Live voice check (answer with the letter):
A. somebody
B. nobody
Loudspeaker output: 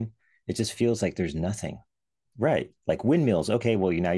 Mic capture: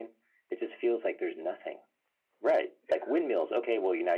A